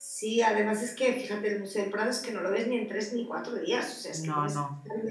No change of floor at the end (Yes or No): Yes